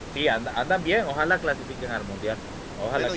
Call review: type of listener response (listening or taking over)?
taking over